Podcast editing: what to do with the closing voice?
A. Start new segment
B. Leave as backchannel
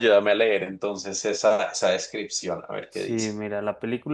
A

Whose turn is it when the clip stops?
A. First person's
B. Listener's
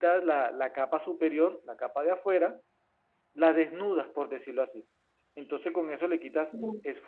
A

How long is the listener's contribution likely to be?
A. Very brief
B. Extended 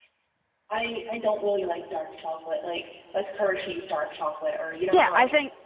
B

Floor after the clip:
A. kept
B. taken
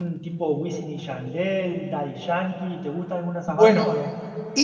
B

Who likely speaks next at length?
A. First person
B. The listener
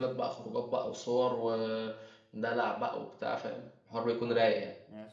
B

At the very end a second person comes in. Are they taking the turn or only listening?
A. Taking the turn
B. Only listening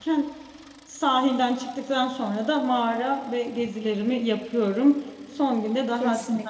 B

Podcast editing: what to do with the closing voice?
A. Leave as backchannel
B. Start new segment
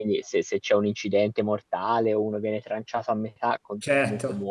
A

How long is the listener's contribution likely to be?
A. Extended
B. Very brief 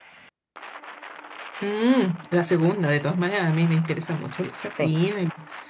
B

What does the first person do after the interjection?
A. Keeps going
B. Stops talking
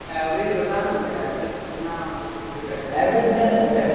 B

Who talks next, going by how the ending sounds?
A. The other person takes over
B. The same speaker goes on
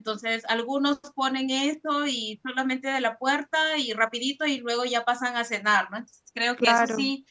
B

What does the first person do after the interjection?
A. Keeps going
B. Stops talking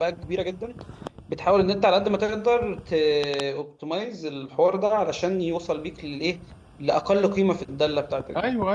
A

